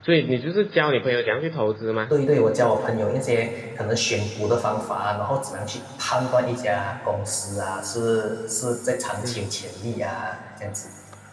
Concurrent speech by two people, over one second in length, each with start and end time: none

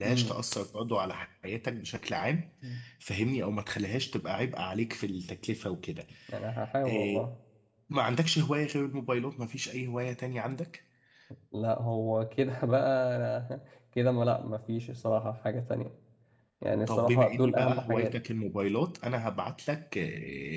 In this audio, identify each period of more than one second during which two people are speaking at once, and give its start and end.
16.9-18.2

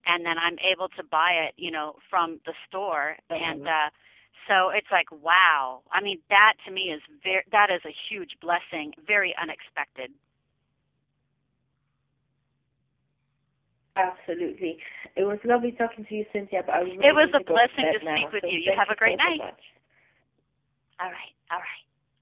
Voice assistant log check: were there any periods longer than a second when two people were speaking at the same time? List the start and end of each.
17.0-19.4

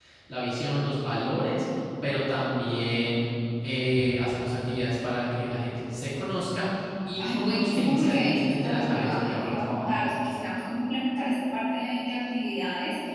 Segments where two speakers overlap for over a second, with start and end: 7.3-10.0

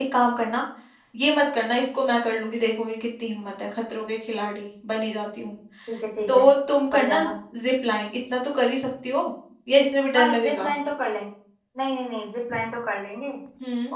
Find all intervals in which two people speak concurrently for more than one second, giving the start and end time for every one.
none

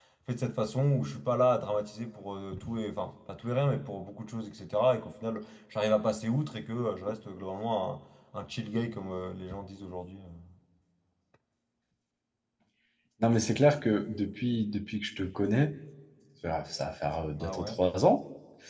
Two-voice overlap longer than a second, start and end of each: none

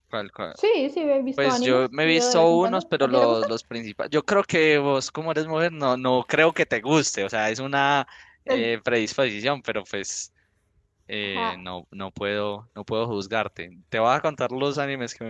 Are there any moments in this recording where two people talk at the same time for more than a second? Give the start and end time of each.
1.4-3.5

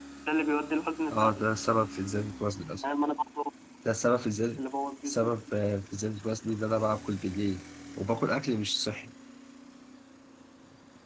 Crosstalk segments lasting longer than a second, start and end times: none

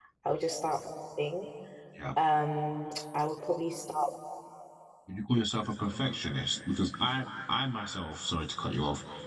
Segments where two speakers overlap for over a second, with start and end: none

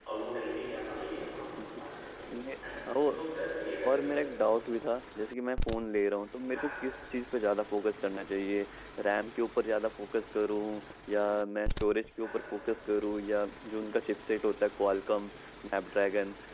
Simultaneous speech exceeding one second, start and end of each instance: none

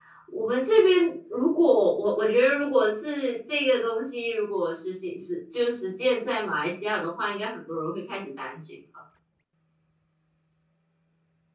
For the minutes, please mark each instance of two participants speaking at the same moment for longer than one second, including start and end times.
none

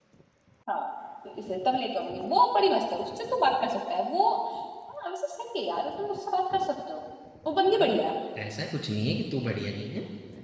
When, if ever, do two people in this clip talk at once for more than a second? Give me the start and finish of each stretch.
none

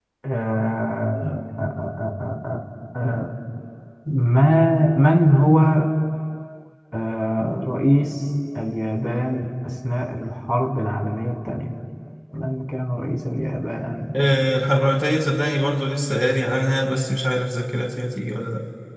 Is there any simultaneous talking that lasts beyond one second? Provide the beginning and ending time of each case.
none

